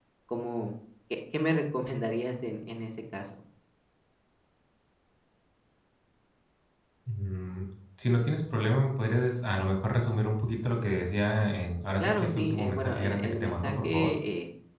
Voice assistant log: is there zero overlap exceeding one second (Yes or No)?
No